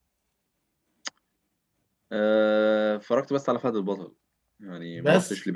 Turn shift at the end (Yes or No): No